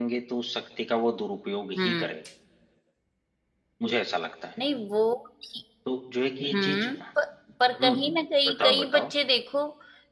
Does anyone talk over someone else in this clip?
Yes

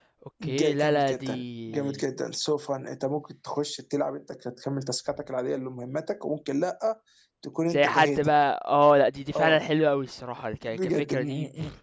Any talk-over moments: Yes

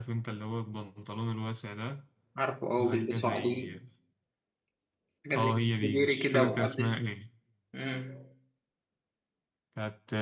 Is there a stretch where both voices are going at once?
Yes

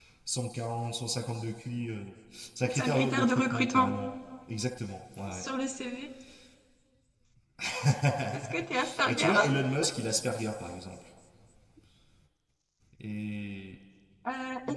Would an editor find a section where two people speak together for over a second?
Yes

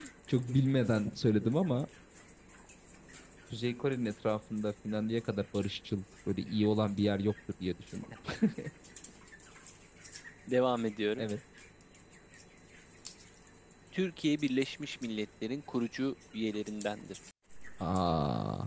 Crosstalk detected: No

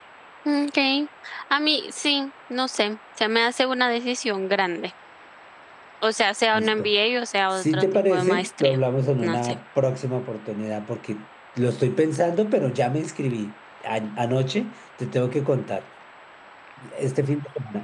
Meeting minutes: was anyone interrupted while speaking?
Yes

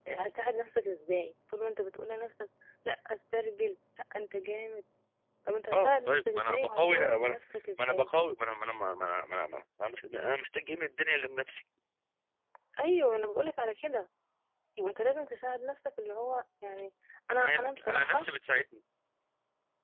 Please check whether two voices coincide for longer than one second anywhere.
Yes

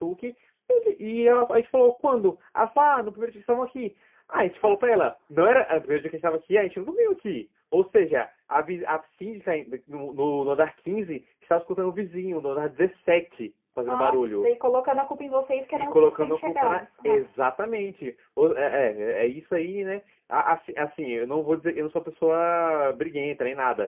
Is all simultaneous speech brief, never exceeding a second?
No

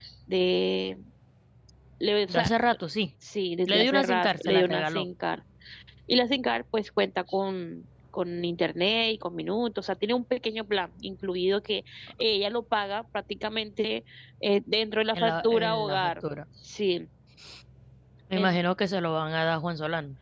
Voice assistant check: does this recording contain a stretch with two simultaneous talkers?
Yes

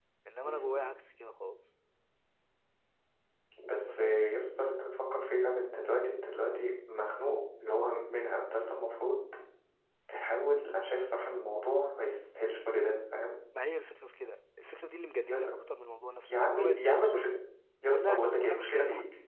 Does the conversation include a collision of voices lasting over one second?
Yes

